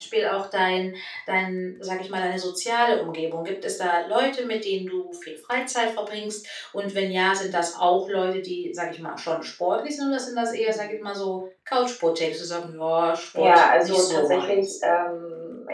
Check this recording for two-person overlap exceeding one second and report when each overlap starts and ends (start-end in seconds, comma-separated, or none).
13.4-14.7